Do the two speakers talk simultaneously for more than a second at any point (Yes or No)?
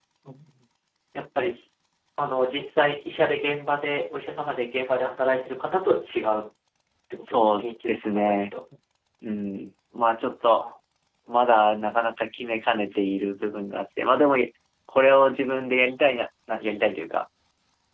Yes